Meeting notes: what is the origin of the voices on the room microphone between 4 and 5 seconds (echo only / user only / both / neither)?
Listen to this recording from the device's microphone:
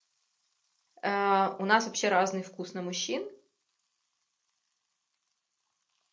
neither